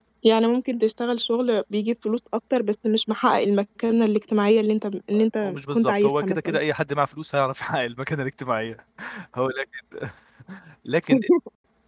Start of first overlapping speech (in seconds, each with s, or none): 5.4 s